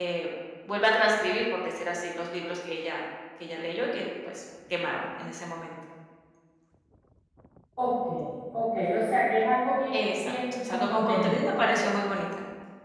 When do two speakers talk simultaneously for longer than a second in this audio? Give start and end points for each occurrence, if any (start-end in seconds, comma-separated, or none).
9.9-11.5